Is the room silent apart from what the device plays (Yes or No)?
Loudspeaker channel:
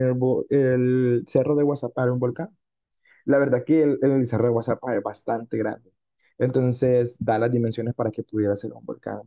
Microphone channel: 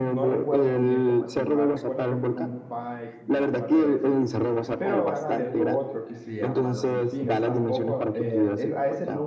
No